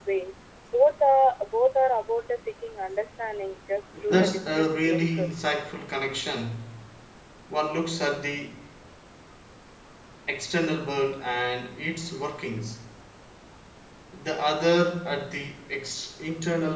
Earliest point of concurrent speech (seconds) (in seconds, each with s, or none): 4.1 s